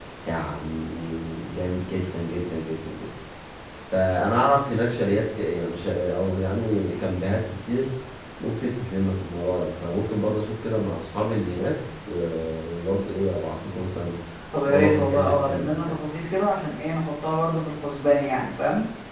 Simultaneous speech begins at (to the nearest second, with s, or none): 15 s